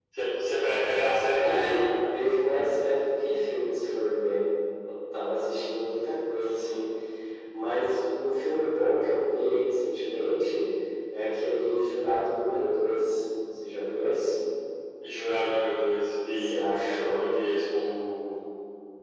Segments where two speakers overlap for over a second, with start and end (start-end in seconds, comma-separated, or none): none